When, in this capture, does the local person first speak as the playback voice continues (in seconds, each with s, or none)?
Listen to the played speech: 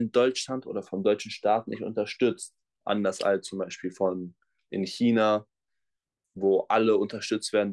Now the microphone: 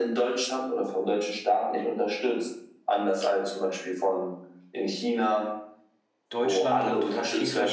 6.3 s